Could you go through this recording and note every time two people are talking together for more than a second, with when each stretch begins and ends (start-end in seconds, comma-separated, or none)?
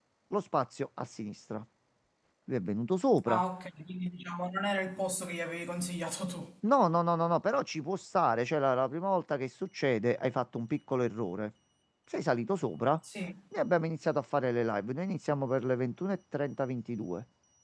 none